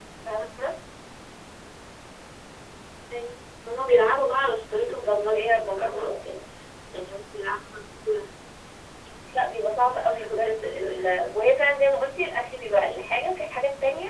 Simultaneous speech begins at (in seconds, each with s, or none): 4.8 s